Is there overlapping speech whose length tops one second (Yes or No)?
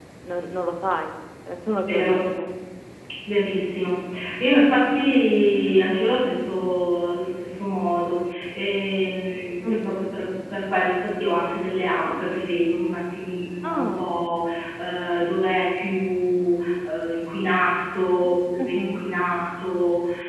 No